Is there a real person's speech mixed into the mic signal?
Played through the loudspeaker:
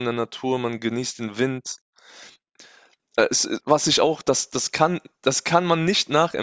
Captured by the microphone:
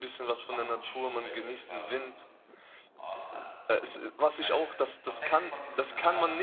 Yes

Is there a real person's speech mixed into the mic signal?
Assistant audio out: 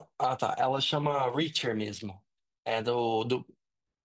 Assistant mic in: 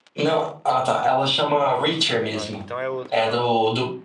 Yes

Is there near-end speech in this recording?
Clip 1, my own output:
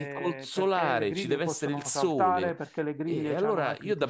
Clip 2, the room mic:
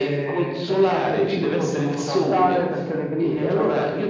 No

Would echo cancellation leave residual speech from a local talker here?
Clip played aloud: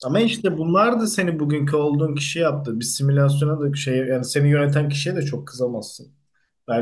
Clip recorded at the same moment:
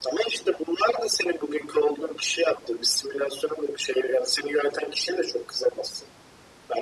No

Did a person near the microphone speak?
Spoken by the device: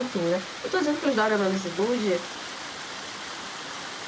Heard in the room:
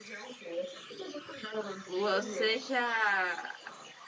Yes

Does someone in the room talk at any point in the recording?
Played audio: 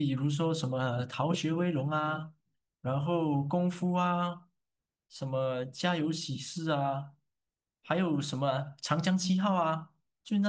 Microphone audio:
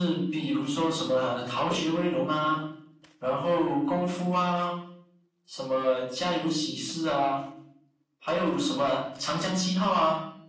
No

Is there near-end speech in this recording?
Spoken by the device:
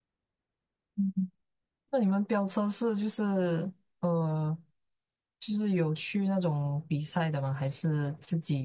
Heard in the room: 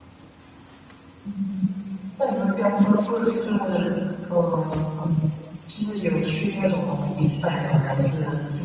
No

